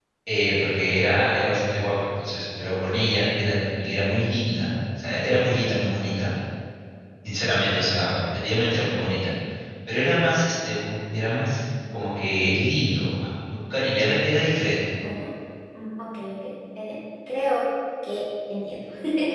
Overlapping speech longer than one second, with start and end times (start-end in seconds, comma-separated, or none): none